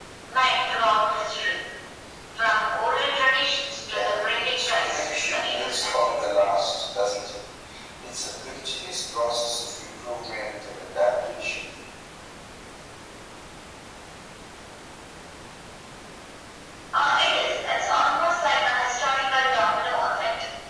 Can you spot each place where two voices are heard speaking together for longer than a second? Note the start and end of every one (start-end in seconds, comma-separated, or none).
3.9-5.9